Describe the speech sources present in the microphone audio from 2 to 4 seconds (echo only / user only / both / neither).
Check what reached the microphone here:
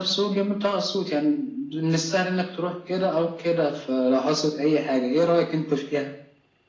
echo only